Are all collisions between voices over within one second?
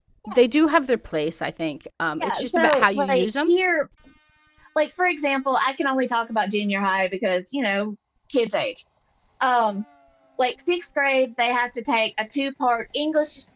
No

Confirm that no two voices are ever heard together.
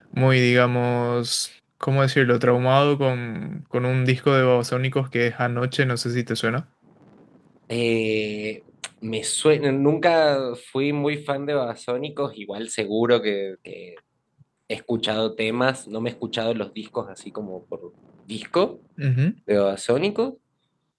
Yes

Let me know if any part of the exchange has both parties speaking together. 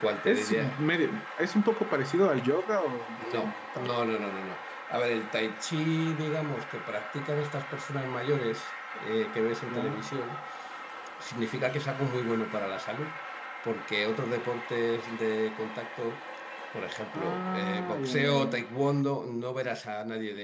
Yes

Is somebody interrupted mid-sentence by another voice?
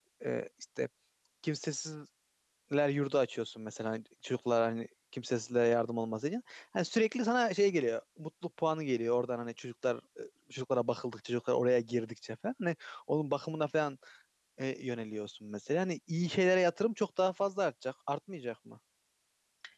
No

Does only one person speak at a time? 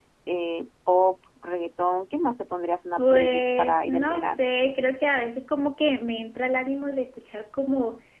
No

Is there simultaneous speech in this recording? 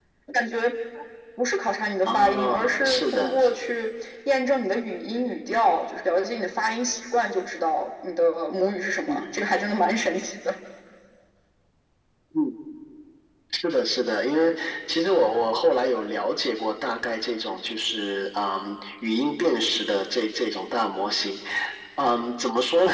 Yes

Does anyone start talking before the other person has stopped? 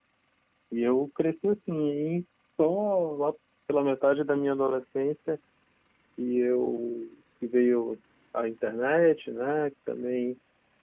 No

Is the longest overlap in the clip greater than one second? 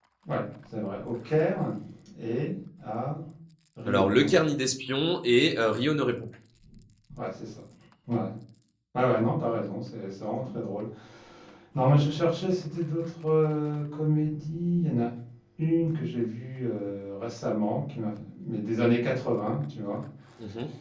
No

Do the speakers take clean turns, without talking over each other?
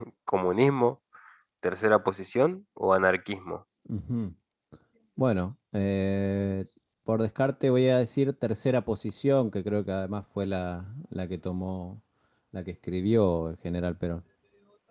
Yes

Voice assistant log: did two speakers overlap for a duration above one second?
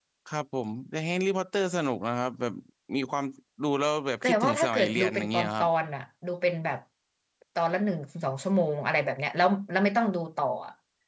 Yes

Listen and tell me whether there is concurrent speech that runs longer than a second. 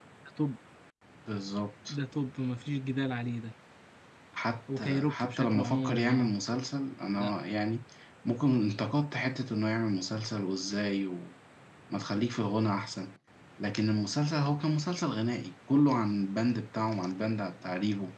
Yes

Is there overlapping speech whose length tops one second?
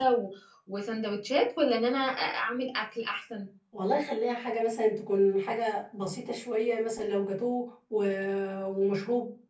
No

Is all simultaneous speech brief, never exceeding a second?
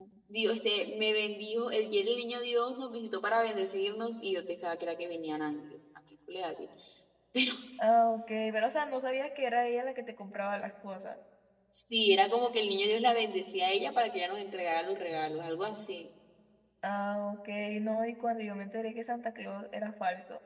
Yes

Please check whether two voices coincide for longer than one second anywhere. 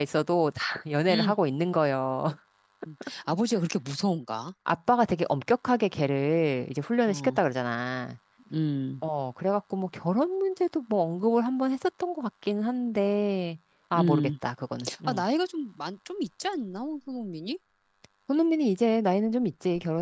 No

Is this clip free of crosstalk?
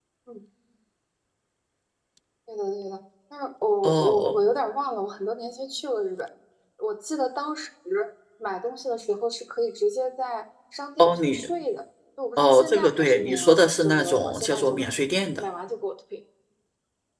No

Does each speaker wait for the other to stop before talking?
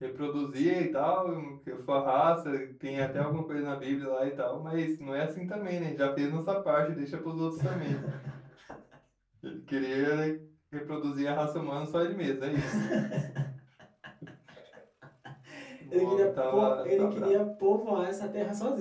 No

